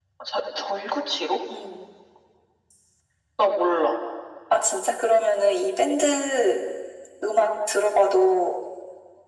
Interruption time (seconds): none

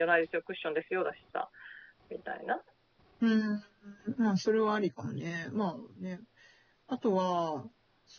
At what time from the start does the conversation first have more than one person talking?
none

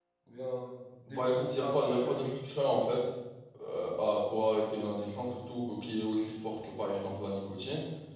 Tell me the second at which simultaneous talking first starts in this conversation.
1.1 s

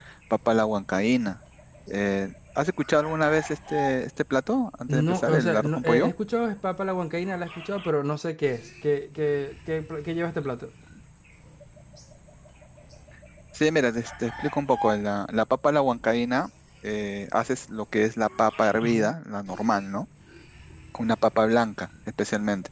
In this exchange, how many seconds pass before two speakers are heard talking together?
4.9 s

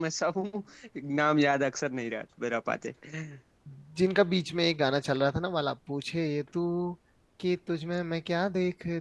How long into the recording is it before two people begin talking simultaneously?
none

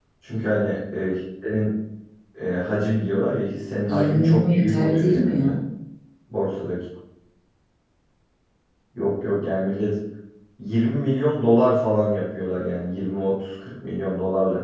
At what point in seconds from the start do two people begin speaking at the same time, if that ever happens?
3.9 s

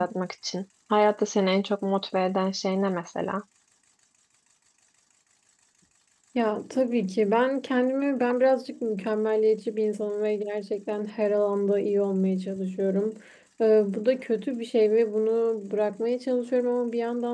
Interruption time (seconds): none

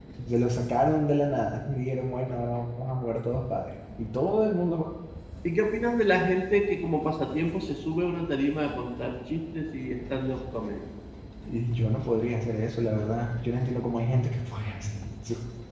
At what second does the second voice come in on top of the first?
none

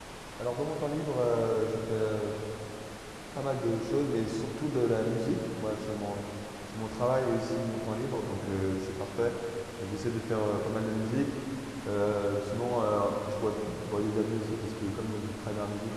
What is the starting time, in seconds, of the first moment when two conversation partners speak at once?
none

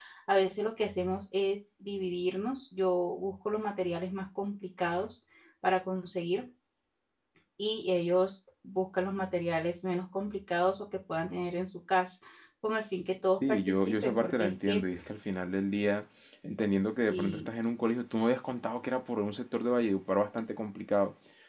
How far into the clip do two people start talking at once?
13.3 s

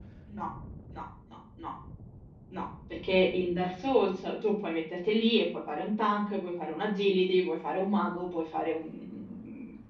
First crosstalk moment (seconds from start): none

